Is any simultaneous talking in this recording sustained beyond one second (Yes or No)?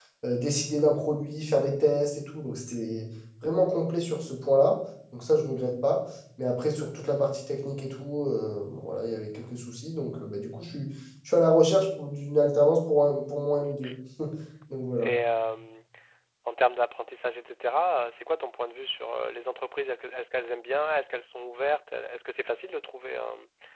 No